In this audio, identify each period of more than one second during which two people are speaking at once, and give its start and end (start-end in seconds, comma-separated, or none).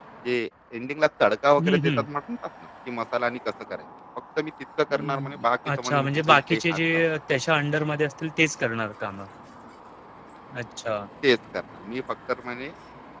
5.8-7.0